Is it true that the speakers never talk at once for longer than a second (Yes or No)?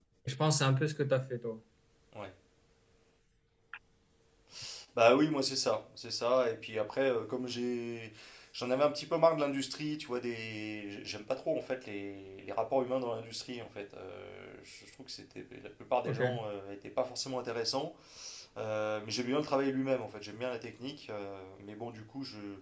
Yes